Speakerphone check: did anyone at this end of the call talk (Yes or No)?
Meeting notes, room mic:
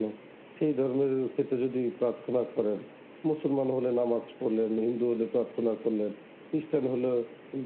No